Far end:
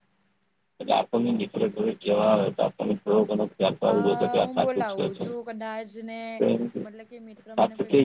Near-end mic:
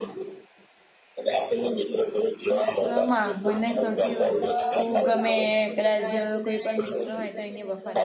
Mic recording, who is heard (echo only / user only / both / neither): both